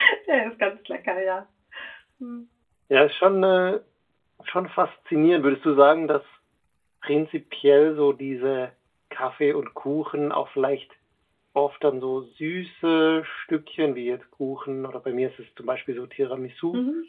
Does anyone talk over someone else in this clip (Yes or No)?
No